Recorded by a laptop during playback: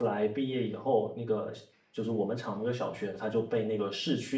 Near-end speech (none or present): present